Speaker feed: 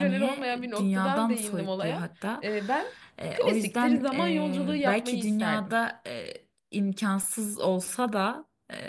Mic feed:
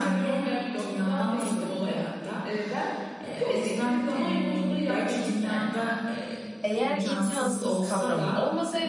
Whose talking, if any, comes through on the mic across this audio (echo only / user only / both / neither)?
both